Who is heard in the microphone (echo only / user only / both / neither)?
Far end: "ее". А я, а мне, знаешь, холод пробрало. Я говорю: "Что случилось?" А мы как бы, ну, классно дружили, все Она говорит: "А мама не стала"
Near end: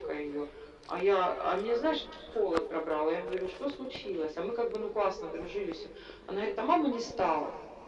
echo only